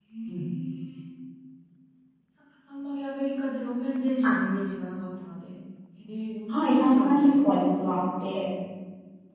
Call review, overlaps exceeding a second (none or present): present